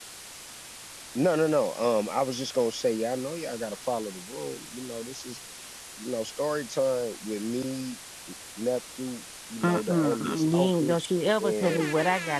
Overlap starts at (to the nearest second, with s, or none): 10 s